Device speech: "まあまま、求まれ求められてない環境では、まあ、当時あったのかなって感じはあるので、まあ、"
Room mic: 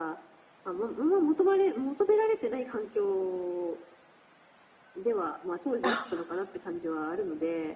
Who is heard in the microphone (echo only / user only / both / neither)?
both